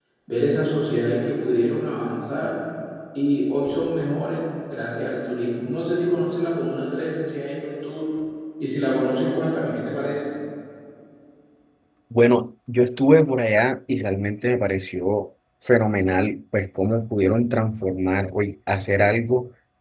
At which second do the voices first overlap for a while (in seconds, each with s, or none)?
none